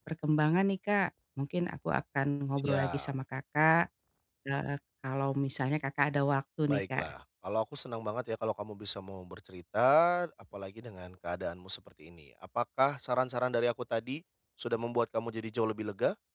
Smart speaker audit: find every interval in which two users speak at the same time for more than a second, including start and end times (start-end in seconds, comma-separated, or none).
none